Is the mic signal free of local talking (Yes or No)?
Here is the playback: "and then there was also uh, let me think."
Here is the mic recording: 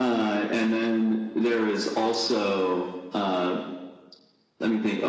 Yes